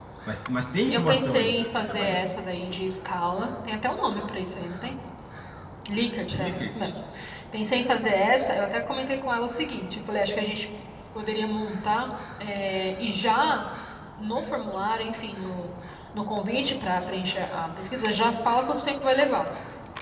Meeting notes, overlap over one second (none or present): present